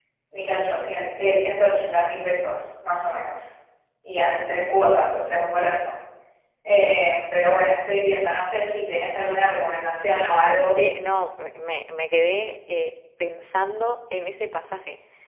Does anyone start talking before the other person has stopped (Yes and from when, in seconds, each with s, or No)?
No